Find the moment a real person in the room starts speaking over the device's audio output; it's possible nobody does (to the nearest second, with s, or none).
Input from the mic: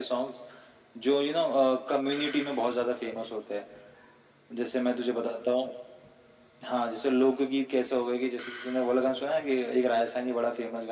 none